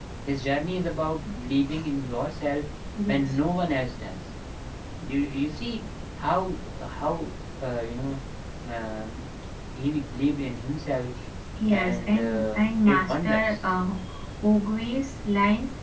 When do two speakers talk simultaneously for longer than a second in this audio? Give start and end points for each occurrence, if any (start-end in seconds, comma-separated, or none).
11.7-13.6